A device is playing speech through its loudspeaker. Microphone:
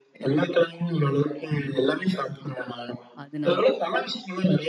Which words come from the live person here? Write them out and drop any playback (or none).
அதனால.